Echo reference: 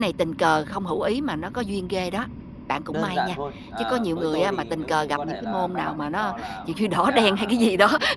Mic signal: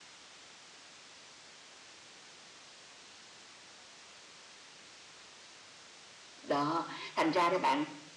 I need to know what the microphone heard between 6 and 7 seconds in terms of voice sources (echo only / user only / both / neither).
user only